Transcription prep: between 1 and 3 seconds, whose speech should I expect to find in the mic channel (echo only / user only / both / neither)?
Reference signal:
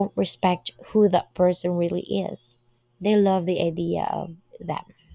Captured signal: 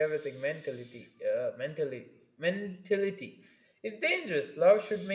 user only